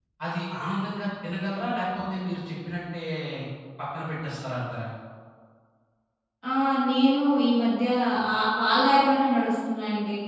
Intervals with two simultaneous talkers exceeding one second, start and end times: none

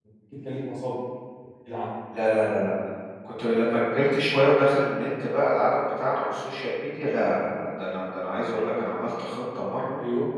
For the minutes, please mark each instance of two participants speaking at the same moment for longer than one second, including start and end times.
none

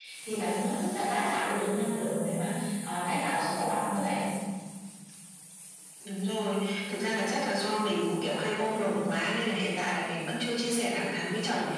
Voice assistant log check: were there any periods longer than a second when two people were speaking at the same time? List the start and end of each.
none

